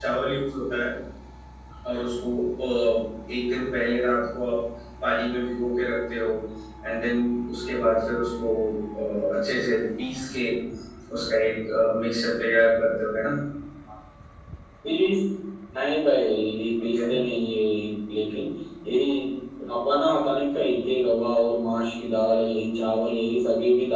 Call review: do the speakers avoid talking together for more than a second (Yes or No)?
Yes